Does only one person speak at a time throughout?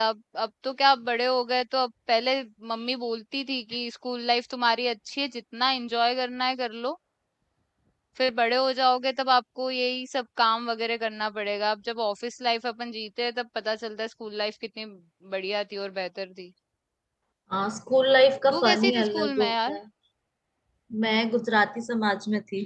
No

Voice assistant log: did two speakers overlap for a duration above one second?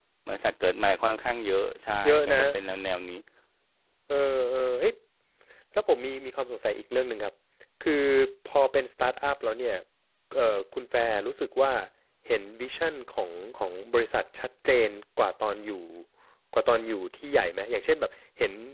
No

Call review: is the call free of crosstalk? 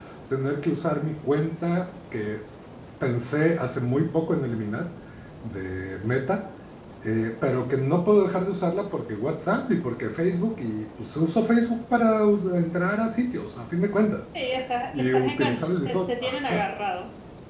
No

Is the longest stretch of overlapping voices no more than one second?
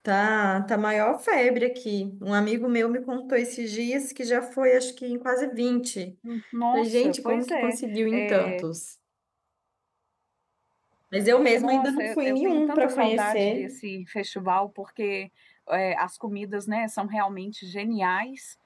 No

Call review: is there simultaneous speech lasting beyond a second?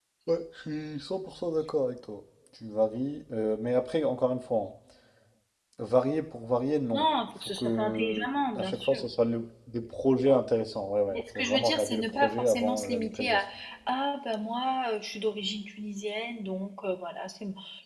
Yes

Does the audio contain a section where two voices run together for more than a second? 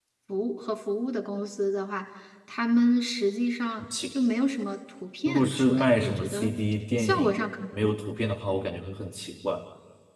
Yes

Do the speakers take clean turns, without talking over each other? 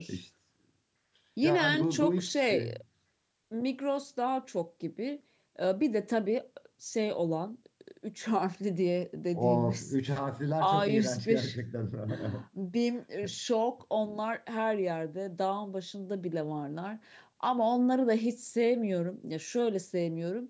No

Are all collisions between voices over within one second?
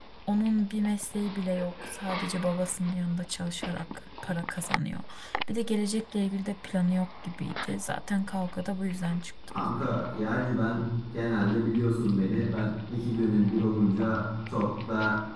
Yes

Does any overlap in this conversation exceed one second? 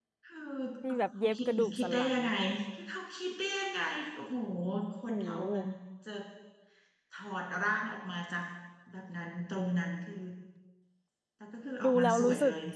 Yes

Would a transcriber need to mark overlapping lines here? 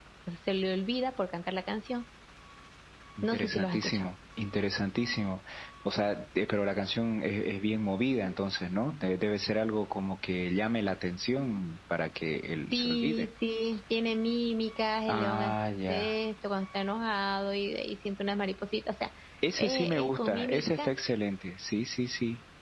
Yes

